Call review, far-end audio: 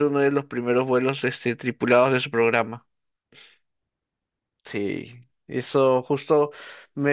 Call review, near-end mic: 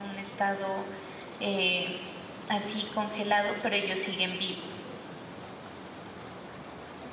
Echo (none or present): none